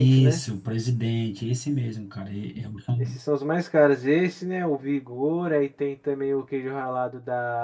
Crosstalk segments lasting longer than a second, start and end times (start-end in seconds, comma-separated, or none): none